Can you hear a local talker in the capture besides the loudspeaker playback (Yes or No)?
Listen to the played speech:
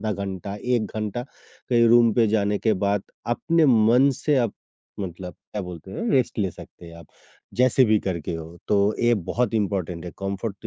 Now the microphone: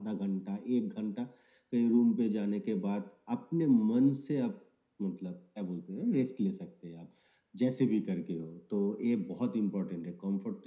No